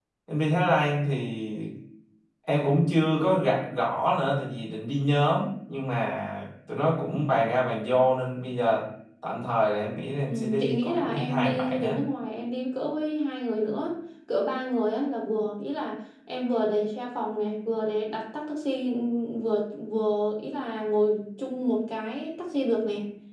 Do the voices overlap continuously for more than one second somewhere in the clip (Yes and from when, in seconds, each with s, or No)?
Yes, from 10.3 s